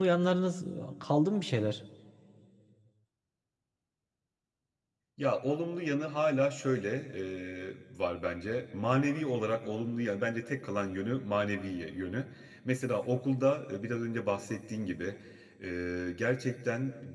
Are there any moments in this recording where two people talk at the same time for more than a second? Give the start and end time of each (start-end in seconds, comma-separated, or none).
none